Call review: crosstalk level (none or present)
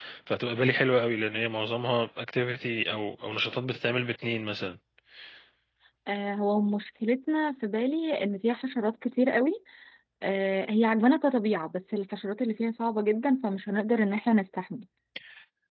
none